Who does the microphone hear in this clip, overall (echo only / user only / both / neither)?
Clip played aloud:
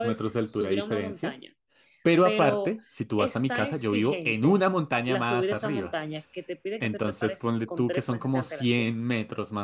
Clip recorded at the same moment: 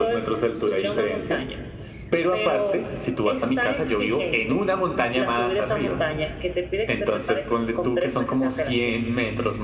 echo only